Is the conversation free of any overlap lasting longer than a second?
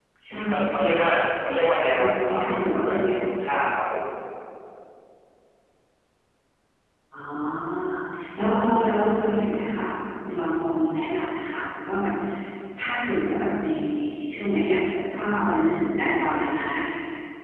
No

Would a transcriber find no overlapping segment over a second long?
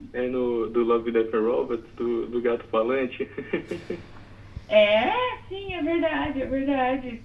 Yes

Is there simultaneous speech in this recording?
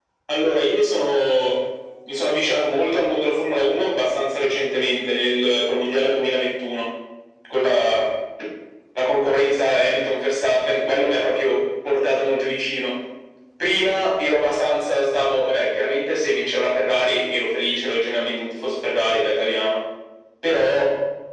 No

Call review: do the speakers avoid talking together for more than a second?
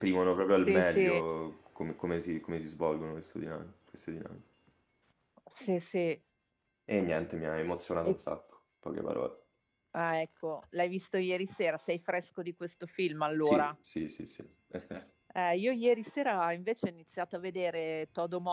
Yes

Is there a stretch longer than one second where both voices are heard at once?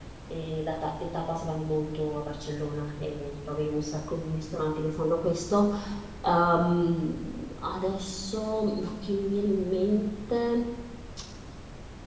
No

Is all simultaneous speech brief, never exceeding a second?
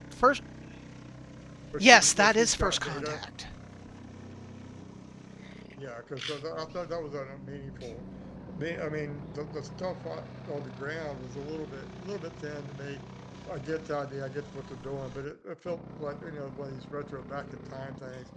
No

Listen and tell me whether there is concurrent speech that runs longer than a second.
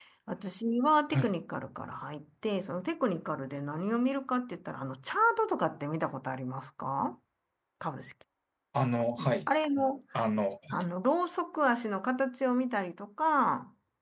No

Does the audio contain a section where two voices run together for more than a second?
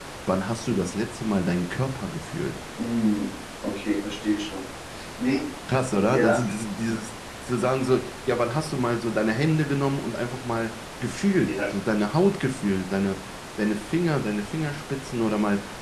No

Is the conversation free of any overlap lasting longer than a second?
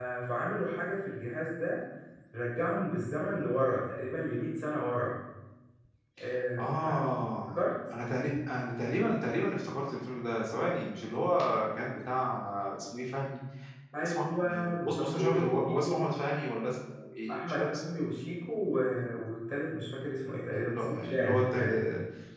No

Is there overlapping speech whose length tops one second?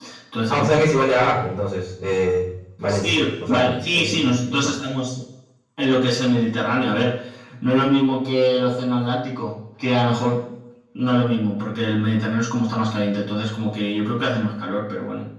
Yes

